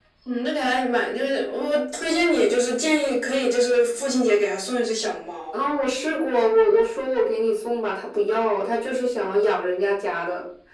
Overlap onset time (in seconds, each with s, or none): none